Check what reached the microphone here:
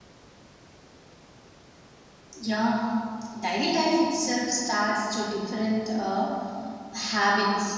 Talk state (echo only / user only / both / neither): user only